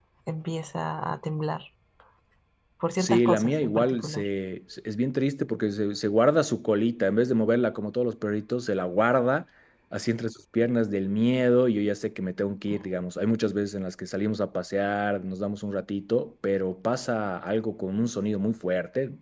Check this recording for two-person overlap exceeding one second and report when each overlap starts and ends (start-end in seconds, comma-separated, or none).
3.0-4.2